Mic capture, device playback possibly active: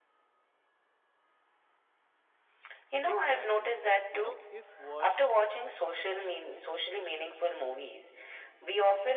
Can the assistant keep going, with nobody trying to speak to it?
No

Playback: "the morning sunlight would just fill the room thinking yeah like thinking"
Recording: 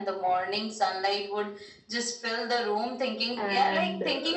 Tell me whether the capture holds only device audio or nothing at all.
No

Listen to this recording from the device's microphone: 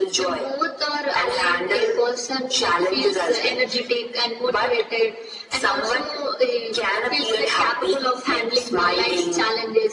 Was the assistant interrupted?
No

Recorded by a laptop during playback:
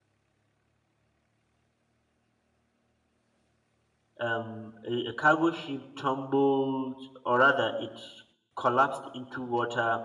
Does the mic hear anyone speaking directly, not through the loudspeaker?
Yes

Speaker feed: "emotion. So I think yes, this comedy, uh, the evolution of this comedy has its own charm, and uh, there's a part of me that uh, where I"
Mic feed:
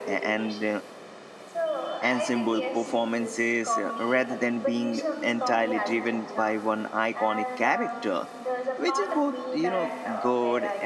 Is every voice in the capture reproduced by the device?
No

